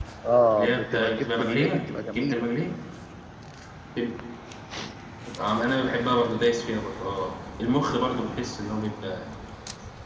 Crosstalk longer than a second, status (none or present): present